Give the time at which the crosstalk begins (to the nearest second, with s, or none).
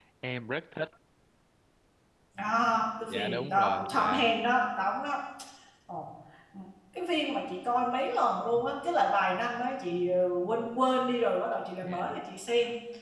3 s